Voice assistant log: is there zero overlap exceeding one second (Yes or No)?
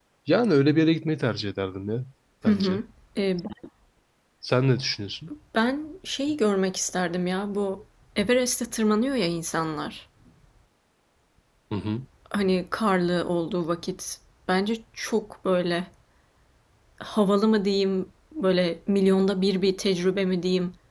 Yes